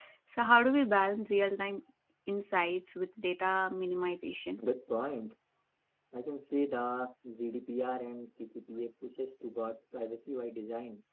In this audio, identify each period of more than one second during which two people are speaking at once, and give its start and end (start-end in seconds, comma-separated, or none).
none